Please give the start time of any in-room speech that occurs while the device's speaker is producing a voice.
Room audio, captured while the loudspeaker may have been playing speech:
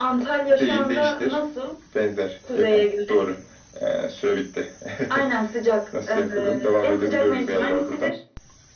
none

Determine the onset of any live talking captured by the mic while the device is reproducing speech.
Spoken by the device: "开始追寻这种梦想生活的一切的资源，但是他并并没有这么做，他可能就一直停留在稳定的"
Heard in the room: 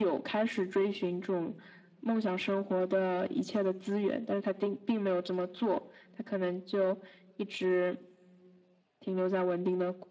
none

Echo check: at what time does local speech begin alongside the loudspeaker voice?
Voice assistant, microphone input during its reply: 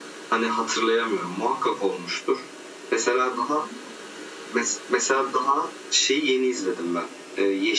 none

